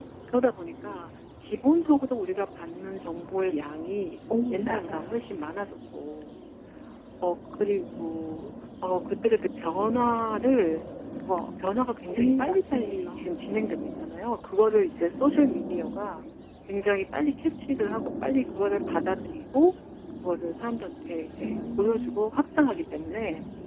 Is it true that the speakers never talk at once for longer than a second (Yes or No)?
No